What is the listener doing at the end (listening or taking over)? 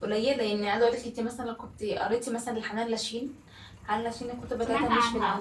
taking over